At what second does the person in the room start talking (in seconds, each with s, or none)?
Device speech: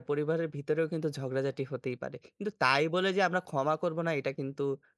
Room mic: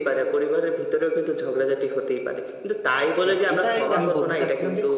3.2 s